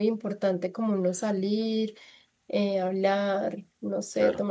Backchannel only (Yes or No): No